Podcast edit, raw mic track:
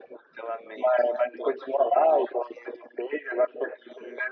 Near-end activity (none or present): none